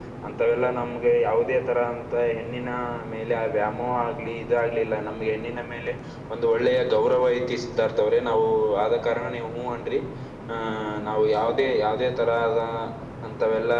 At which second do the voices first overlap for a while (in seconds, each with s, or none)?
none